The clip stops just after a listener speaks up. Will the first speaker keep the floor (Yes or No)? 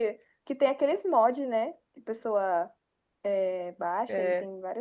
Yes